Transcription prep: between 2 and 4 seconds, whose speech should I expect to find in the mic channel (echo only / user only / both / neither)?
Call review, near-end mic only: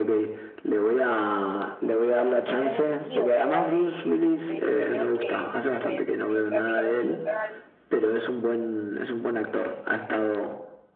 both